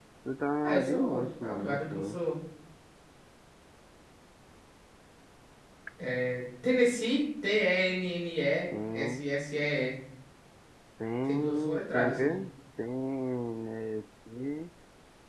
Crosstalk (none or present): present